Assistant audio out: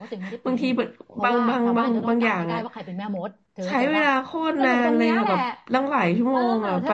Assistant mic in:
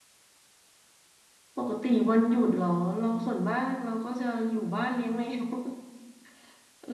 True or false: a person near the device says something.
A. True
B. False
A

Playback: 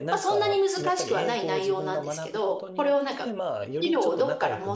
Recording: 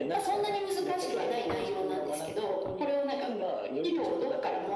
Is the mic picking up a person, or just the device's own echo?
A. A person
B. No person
B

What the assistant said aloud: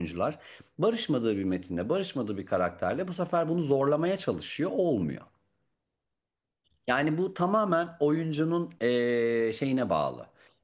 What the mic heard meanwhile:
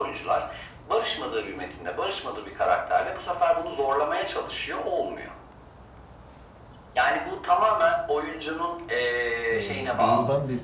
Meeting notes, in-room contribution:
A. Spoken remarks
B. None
A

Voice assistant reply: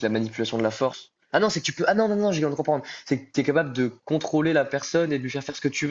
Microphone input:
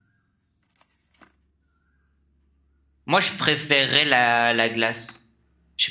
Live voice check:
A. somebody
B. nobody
A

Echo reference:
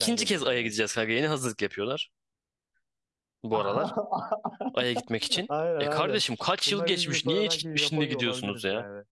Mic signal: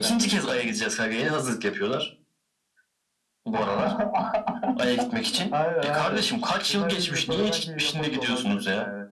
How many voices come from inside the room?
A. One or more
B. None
B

